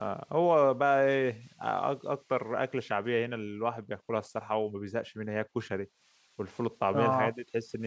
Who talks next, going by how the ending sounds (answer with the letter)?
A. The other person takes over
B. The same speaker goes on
B